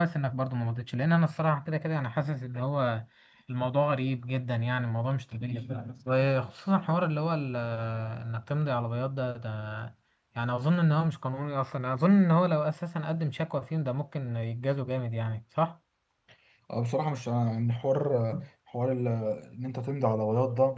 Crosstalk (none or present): none